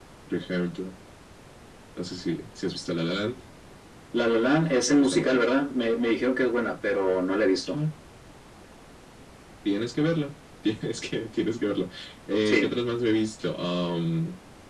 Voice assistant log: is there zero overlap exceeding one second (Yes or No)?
Yes